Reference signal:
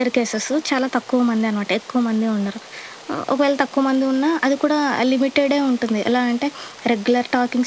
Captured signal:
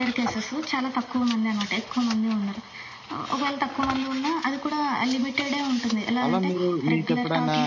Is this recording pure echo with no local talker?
No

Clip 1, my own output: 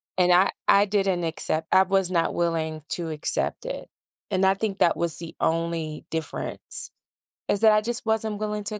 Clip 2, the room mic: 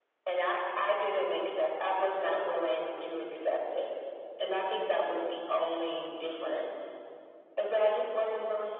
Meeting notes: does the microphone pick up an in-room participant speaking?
No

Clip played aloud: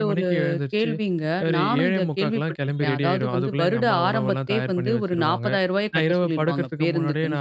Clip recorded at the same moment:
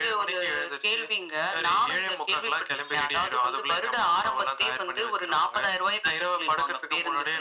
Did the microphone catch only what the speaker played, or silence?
Yes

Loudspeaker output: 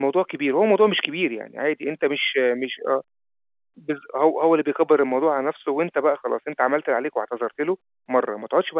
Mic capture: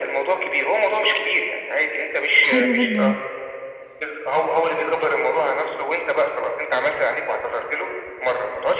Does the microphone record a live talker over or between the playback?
Yes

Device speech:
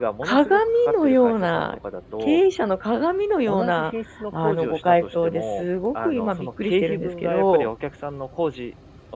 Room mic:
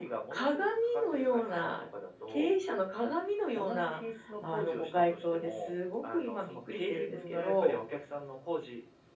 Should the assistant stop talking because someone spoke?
No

